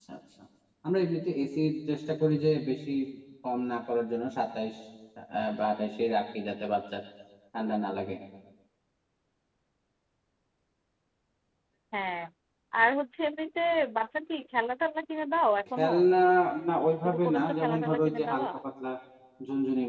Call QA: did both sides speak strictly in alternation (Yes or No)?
No